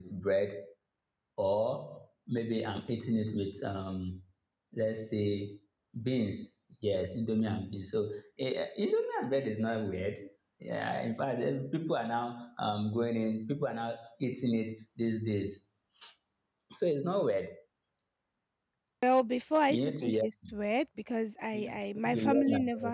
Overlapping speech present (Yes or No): Yes